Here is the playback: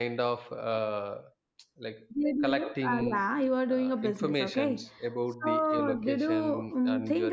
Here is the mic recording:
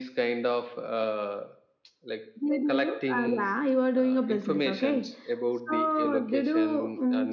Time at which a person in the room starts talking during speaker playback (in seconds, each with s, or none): none